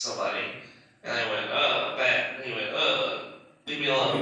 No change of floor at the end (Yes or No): No